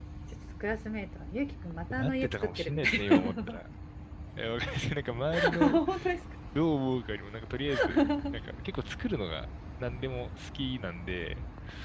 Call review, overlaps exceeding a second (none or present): present